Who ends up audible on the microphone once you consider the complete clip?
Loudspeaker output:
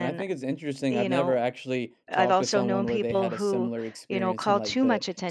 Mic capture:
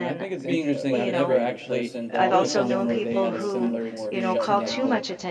both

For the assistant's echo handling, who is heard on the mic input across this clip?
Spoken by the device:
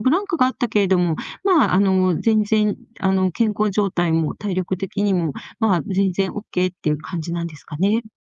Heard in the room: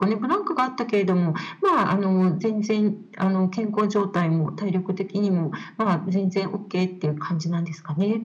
echo only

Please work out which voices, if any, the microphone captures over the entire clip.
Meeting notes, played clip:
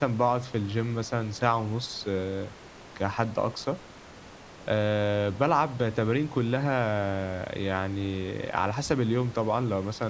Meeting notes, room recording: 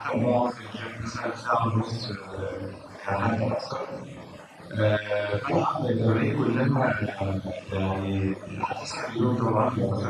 echo only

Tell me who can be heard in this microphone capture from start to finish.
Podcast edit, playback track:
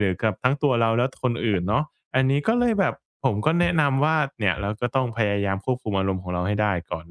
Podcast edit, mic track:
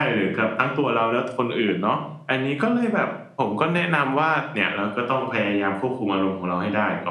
echo only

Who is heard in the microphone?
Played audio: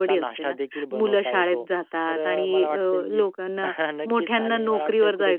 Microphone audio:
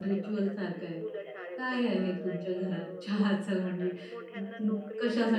both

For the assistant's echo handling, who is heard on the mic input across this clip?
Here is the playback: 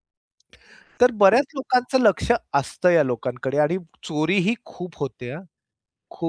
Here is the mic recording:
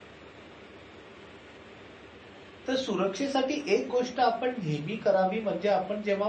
user only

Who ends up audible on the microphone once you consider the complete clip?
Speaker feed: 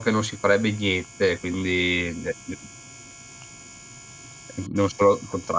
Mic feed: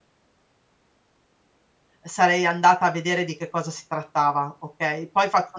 user only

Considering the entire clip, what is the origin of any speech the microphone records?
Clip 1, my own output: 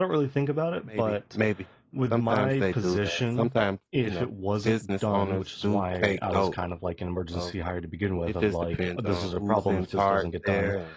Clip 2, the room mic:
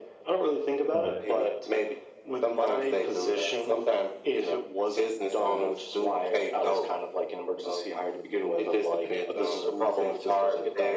both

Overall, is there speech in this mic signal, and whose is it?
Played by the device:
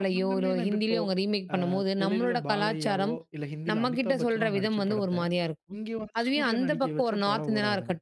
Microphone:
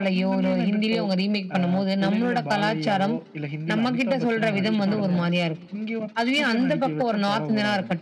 both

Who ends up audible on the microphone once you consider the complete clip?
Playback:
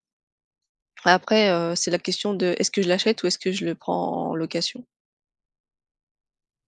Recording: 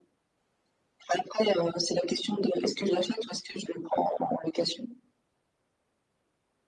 echo only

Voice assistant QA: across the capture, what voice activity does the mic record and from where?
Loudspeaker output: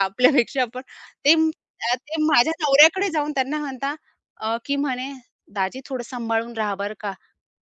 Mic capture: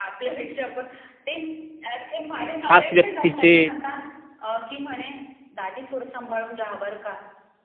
both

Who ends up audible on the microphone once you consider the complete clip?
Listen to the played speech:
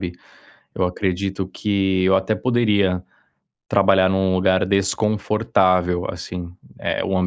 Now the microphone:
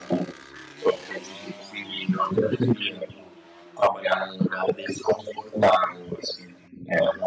echo only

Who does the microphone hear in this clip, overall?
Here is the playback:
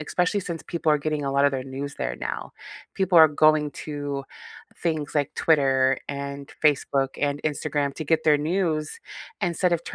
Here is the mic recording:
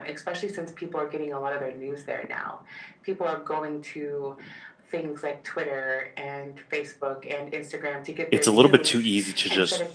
both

